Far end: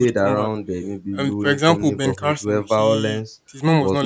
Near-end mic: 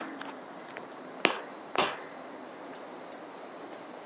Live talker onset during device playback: none

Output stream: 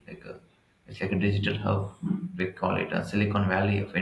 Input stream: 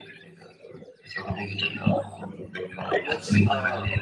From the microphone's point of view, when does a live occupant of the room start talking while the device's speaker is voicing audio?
2.9 s

